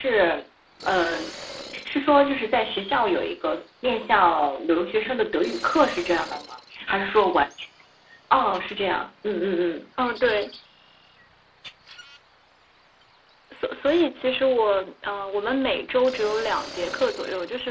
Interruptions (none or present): none